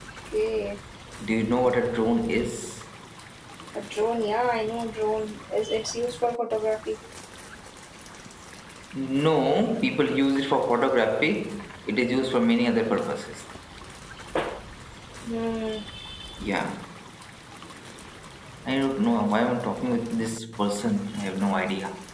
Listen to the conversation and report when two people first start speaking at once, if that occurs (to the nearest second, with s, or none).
none